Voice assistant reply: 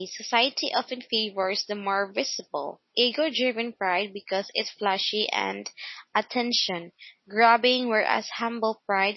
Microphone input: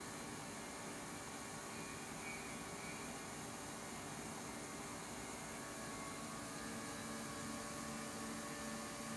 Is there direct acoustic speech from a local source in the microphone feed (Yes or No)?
No